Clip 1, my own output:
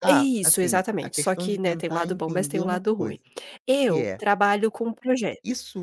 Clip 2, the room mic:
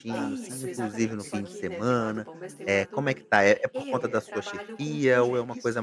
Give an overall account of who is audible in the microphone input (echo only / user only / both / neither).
both